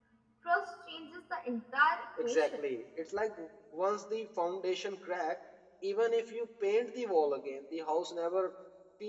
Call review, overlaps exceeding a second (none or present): none